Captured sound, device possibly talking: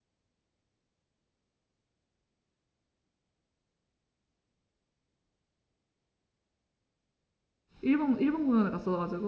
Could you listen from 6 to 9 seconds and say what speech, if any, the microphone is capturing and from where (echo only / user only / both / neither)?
user only